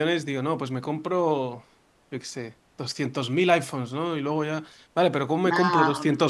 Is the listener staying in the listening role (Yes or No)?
Yes